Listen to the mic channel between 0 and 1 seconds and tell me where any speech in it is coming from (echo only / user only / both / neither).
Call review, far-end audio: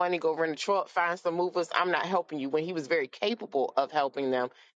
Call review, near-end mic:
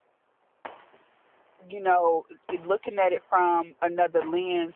neither